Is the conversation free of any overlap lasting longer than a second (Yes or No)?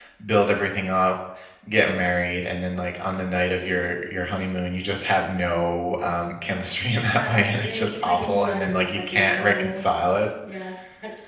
No